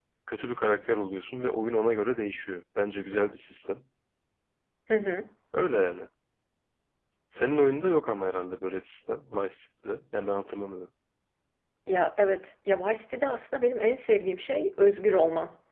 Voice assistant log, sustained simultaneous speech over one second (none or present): none